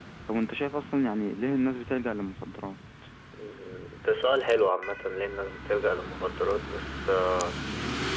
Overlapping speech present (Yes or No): No